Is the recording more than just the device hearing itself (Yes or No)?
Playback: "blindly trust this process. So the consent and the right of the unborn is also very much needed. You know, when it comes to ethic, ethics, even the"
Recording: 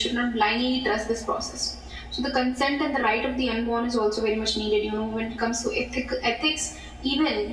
No